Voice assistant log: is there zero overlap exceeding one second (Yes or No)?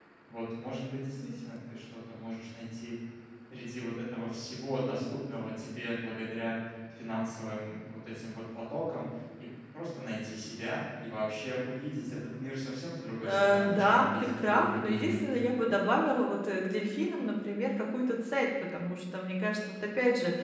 No